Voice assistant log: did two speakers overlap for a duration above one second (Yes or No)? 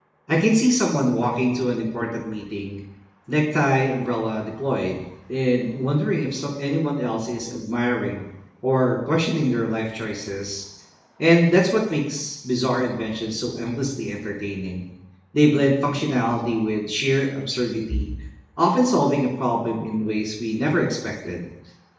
No